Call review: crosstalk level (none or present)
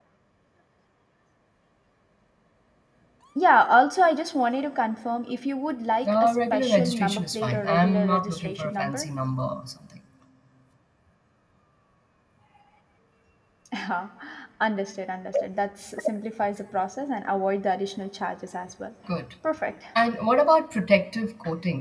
present